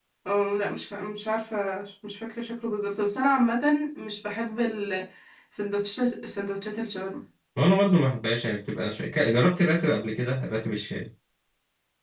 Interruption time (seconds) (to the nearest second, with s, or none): none